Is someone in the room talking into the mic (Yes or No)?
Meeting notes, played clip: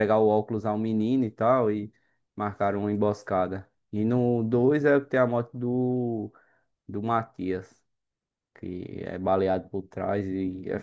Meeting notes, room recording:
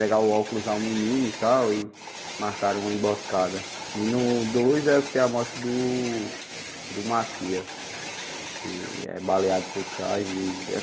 No